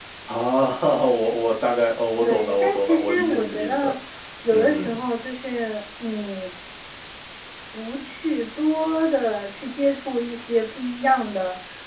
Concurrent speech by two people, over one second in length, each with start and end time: 2.2-3.9

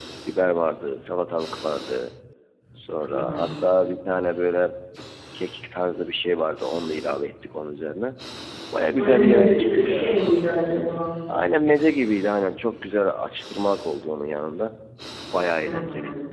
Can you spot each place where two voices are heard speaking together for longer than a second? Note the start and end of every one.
9.0-10.2

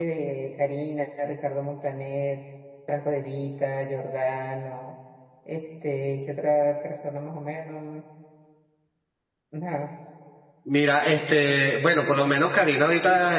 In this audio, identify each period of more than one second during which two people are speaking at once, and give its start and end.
none

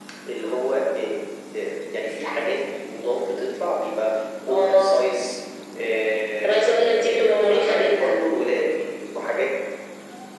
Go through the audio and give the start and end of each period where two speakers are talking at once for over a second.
6.7-8.2

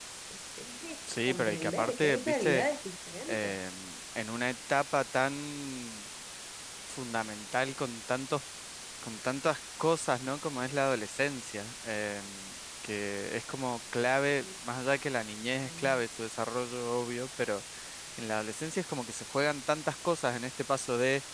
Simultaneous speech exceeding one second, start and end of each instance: 1.3-2.7

